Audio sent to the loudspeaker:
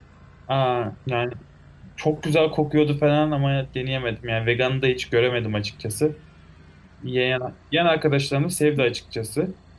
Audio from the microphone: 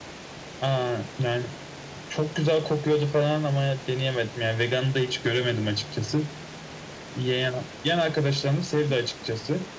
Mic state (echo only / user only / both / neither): echo only